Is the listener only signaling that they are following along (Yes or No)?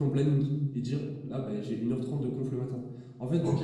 No